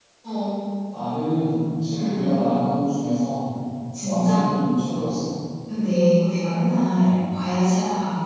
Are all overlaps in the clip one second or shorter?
Yes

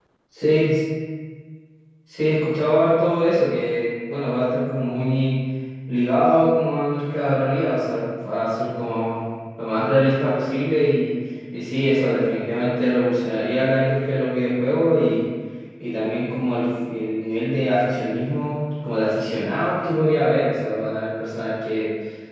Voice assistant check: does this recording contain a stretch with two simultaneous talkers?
No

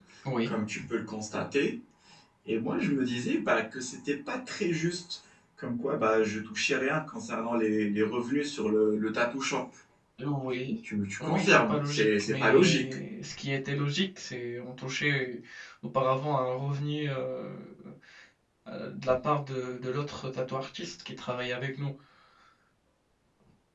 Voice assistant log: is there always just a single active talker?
No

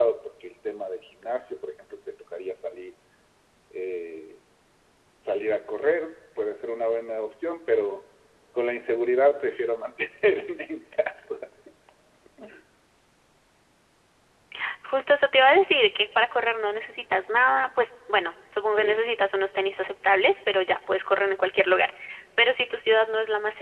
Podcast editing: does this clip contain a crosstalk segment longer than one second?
No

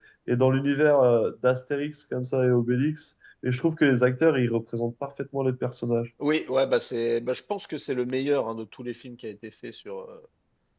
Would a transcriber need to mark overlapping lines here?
No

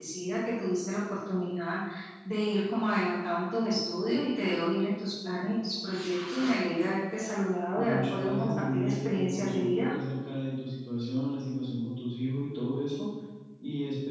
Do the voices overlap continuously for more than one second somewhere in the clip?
Yes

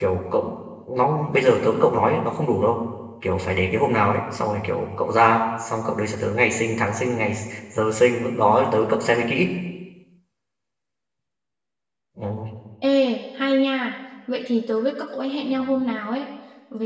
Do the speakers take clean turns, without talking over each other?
Yes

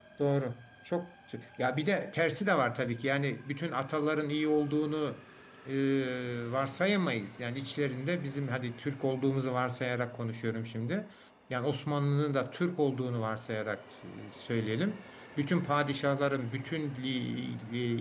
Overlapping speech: No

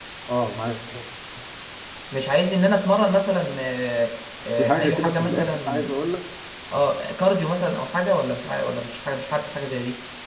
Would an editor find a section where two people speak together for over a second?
Yes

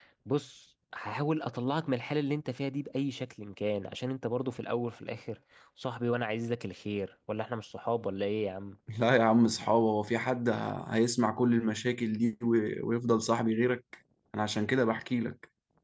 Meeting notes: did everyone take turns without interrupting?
Yes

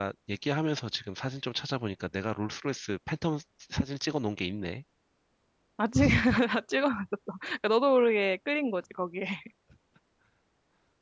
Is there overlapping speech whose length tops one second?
No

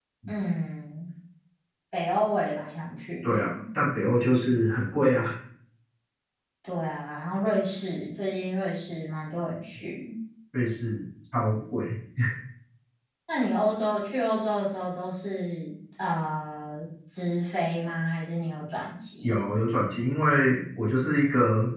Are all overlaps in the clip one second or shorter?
Yes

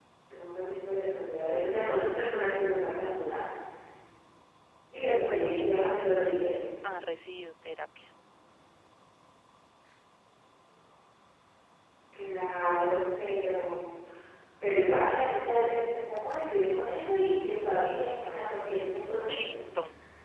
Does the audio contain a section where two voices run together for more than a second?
Yes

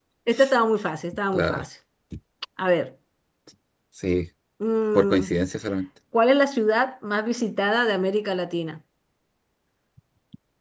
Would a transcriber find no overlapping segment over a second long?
Yes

